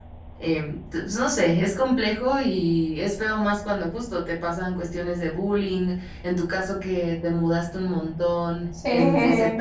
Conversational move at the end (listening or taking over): listening